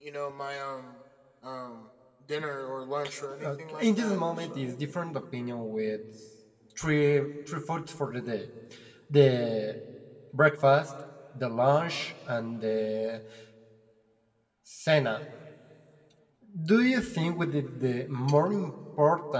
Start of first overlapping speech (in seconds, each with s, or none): 3.3 s